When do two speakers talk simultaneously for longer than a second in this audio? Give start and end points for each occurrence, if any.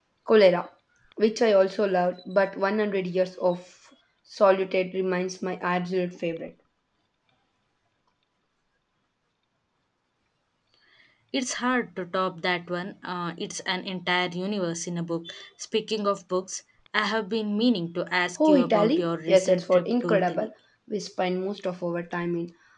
18.4-20.5

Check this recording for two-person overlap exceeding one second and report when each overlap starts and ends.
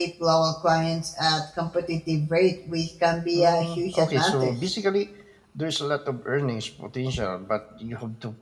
3.3-4.5

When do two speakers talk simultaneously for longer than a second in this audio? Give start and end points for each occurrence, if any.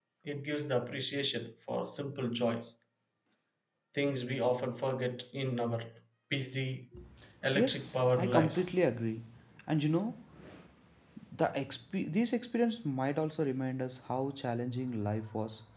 7.6-8.8

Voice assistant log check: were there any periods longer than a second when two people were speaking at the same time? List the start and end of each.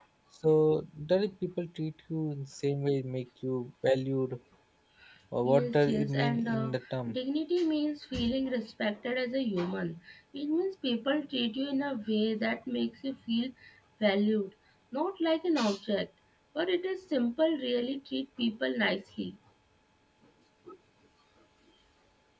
5.5-7.2

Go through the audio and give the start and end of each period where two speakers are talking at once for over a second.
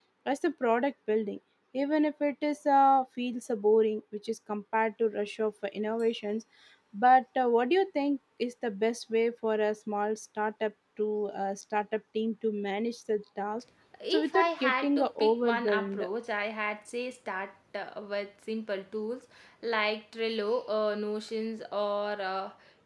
14.1-16.1

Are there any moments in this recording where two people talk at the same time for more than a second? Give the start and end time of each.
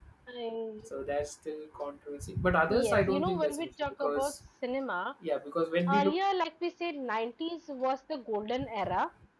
2.7-4.3

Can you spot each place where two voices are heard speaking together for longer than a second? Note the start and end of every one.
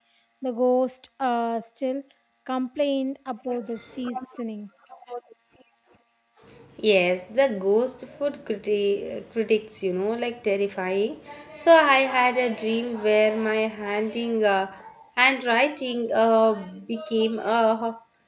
none

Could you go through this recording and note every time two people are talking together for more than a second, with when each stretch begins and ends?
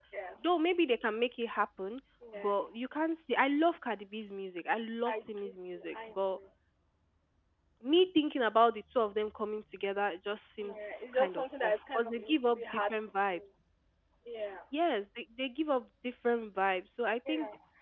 5.0-6.4, 10.6-13.4

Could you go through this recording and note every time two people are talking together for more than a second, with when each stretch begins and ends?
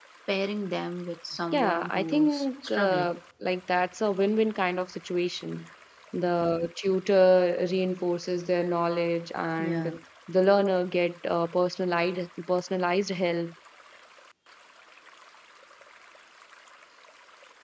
1.5-3.1

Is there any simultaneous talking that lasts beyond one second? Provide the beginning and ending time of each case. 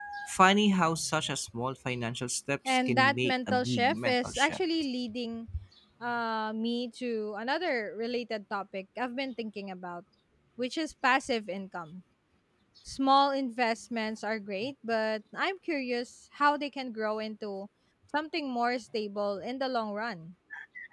2.6-4.6

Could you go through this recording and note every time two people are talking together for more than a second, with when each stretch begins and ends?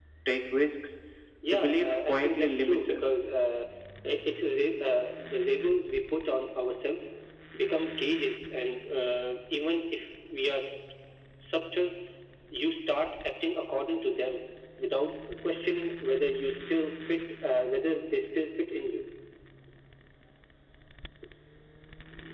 1.5-3.1

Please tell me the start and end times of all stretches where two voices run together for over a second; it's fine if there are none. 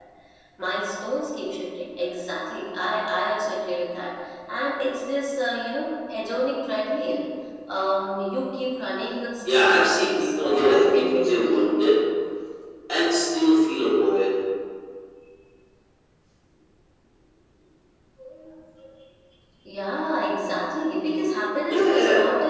9.5-11.8

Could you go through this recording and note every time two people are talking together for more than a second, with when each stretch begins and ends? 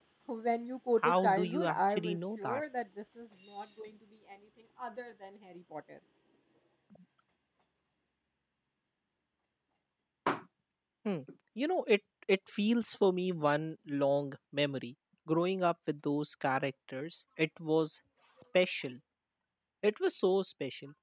1.0-2.6

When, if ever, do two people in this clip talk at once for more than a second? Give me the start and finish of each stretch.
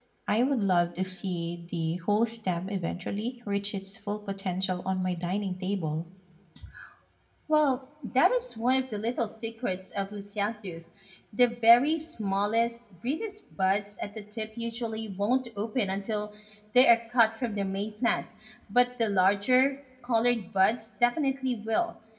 none

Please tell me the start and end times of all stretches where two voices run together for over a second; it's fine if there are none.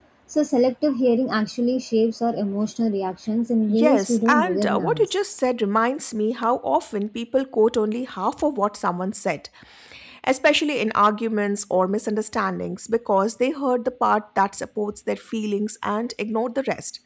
3.7-5.1

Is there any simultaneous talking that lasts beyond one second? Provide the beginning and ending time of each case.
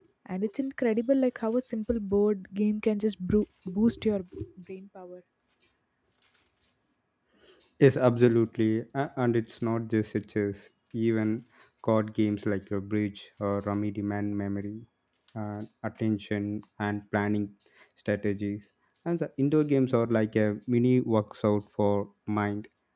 none

